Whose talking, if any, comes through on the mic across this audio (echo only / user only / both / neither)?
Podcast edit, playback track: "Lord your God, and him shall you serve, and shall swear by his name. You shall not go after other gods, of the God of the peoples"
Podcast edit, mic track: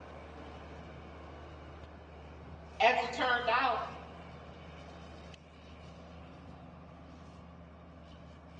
user only